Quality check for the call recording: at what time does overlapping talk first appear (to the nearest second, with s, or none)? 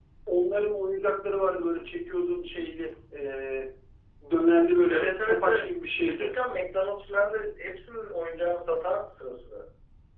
5 s